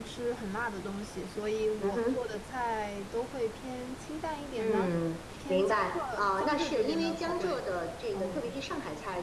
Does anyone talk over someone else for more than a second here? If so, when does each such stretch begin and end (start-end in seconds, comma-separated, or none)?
5.5-7.6